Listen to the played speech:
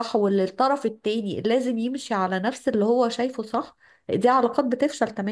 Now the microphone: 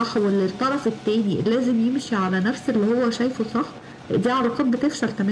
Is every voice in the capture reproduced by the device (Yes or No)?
Yes